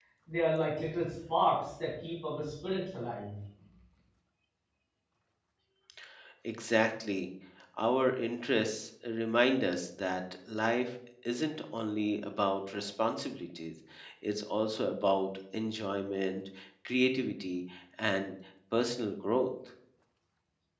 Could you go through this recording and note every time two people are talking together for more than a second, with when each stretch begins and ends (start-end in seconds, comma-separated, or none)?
none